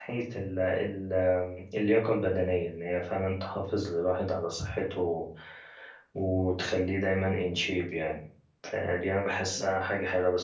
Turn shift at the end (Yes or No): No